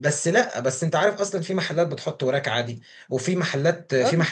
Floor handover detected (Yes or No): No